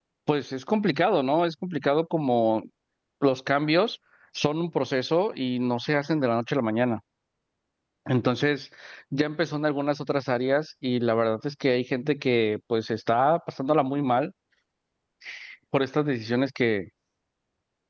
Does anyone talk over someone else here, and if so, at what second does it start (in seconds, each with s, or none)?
none